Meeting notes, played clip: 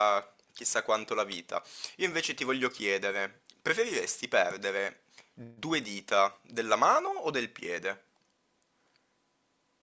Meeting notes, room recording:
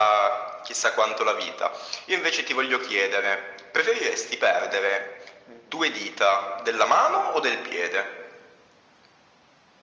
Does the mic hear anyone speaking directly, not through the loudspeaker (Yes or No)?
No